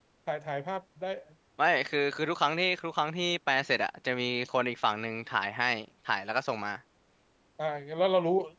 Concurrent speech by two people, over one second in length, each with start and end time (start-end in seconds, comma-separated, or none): none